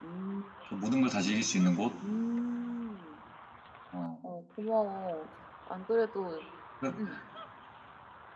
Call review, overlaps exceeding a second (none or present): none